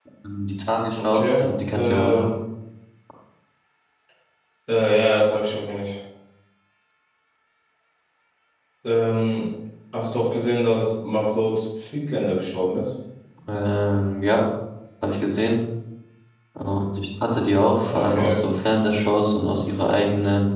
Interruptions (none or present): present